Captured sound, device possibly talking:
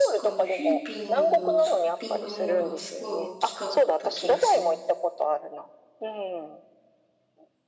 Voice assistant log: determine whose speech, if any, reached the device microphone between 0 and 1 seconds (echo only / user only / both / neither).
both